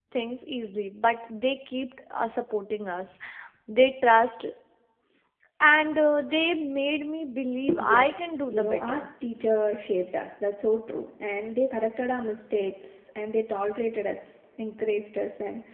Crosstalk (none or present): present